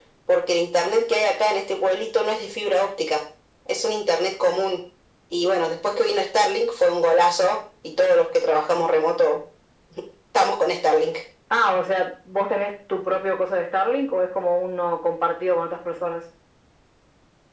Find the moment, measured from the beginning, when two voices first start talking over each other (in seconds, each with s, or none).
none